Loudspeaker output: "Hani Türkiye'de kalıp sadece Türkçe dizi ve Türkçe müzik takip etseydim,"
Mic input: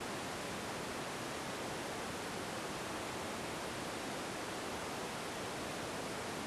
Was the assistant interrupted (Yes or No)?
No